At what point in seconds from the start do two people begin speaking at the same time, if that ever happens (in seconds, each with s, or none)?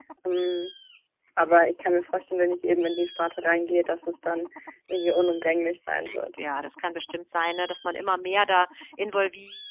none